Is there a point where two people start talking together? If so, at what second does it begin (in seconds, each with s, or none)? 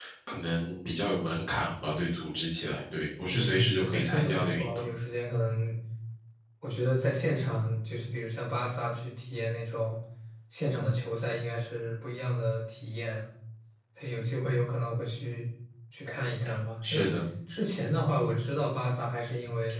3.3 s